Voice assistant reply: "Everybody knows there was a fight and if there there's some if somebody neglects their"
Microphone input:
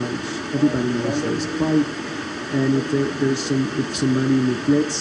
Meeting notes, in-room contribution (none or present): present